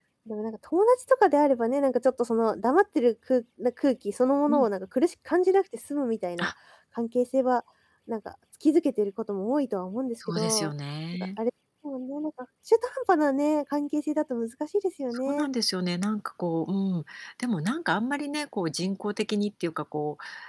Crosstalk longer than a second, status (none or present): none